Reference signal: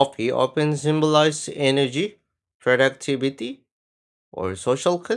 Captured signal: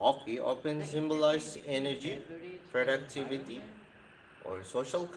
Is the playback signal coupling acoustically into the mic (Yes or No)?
Yes